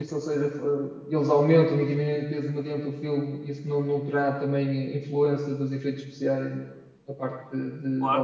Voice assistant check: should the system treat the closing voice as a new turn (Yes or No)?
Yes